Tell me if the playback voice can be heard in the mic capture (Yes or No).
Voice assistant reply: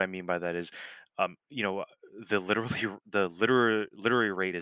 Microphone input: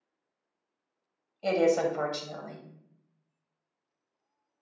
No